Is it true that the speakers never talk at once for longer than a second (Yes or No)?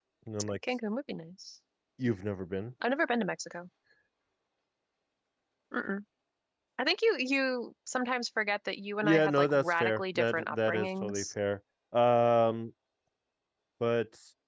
No